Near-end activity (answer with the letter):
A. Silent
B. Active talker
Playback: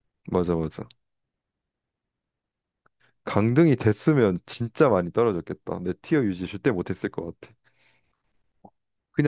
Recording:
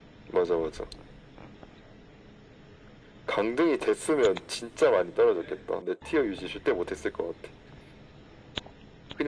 A